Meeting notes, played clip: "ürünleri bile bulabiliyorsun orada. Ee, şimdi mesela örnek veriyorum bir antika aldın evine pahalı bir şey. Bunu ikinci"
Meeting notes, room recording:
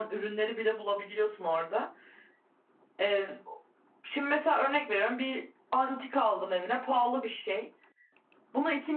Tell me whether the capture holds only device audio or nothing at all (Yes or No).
Yes